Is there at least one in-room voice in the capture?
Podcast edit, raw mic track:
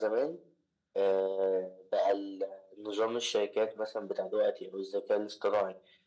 No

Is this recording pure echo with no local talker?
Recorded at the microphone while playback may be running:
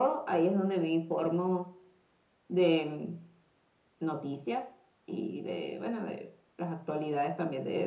Yes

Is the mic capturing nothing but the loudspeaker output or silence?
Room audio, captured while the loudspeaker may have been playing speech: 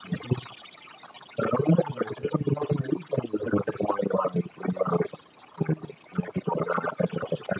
Yes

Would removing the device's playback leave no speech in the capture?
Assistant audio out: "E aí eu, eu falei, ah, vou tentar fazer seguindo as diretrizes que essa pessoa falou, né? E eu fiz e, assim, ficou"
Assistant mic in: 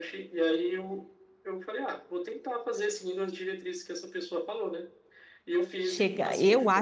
No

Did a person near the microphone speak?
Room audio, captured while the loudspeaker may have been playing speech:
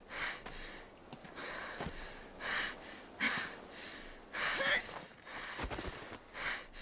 No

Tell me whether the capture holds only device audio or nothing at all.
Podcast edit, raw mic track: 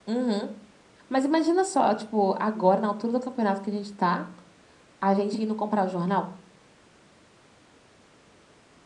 No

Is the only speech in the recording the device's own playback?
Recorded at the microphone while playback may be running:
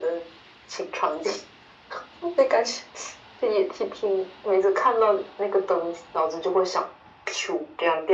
Yes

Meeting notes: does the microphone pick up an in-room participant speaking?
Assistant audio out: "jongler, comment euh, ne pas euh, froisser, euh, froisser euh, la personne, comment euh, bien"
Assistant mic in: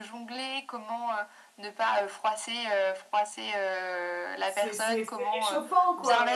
Yes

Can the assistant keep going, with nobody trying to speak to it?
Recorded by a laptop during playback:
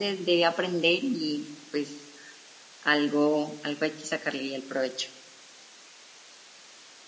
Yes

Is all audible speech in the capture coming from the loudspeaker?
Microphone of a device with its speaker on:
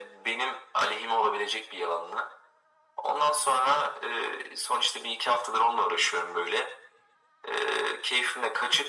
Yes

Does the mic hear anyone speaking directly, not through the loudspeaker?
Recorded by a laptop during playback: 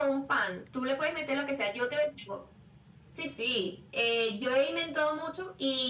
No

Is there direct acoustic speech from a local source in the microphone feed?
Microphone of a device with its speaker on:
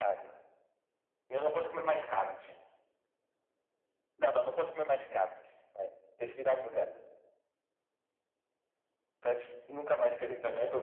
No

